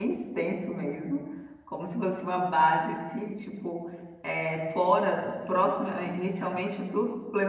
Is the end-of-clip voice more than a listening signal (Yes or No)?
No